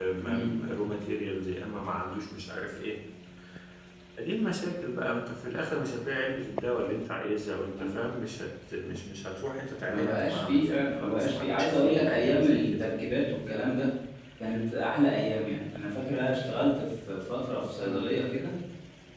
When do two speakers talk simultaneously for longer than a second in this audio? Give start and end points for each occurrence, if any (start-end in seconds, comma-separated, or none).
9.9-12.8